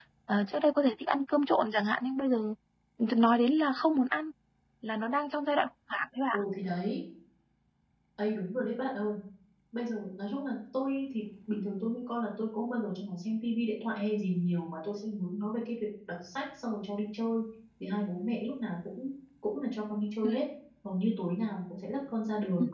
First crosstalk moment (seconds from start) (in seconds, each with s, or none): none